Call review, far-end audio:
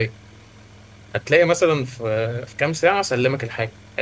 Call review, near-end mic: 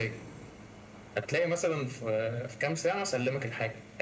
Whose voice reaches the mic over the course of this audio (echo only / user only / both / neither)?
echo only